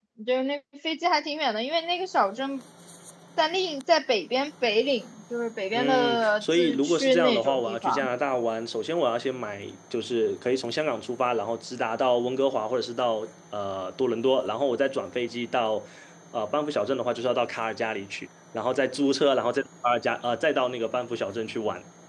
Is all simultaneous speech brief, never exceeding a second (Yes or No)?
No